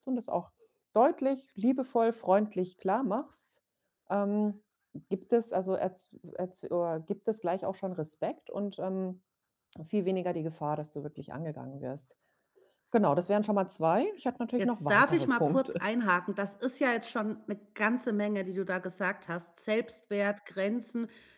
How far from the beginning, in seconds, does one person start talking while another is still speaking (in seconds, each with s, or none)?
14.6 s